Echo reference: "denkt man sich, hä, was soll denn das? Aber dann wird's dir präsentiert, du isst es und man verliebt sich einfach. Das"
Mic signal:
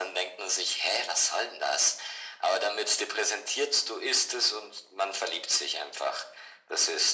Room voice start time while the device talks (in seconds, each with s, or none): none